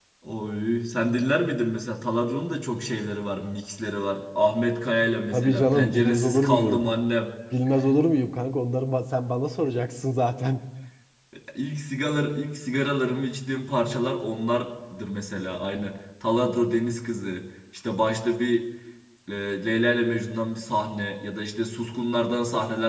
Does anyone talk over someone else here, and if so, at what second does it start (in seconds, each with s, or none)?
5.3 s